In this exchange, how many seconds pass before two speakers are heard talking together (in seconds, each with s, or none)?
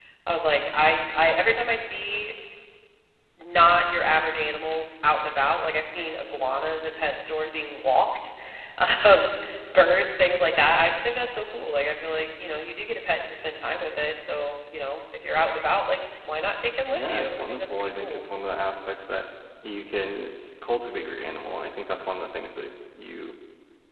16.9 s